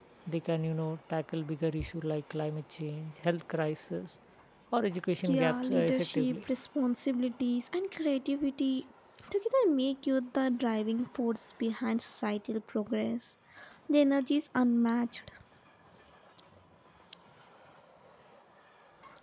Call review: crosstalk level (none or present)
present